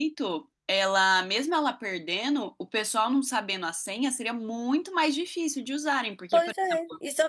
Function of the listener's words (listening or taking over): taking over